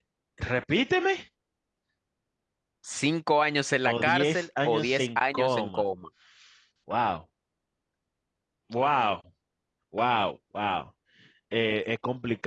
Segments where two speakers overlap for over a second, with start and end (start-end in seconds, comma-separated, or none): 3.9-5.8